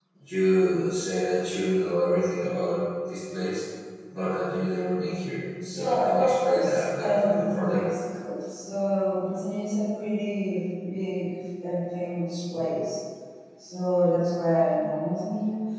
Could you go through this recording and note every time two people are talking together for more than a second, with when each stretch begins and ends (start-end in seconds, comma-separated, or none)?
5.8-7.8